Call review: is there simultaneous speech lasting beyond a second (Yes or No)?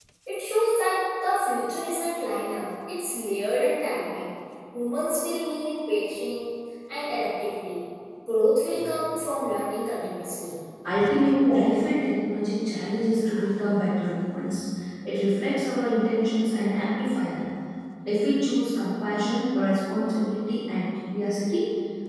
No